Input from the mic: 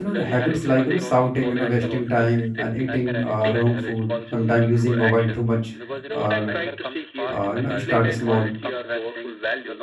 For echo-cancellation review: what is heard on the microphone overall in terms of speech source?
both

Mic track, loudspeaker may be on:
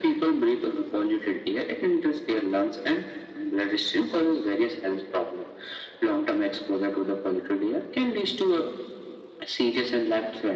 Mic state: echo only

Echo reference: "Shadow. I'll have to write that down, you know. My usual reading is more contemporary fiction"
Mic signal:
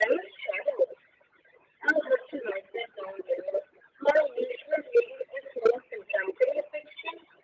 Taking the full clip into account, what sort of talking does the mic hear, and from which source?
echo only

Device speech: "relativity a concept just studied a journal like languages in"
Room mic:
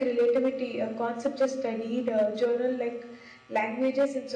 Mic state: echo only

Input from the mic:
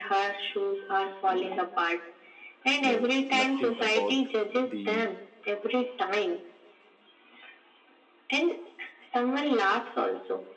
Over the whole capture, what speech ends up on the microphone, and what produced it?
both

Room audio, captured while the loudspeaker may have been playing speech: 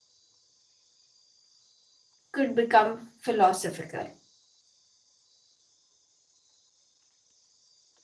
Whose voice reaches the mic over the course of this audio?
user only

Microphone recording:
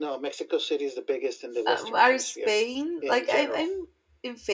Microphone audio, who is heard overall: both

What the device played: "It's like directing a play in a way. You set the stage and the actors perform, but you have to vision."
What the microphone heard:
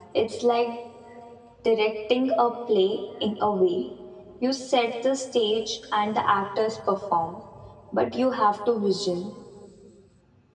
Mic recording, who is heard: echo only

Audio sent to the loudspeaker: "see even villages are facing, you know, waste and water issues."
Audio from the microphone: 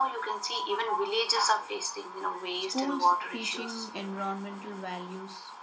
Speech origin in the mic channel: both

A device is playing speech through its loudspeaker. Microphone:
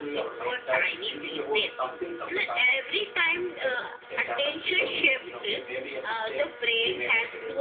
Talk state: both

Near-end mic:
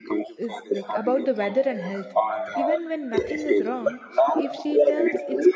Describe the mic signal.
both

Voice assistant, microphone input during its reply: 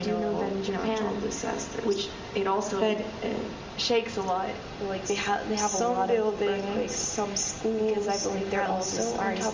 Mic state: echo only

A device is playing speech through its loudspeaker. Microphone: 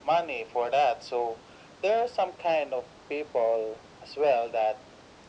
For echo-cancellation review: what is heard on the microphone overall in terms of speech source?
echo only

